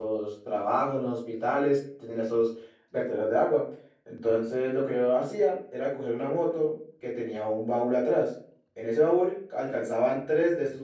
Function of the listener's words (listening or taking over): listening